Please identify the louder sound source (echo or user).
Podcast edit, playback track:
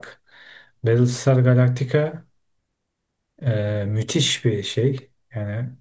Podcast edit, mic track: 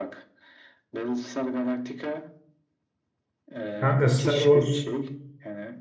user